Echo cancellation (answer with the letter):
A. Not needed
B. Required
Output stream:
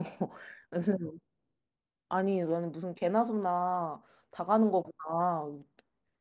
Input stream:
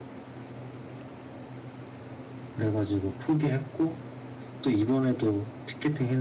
A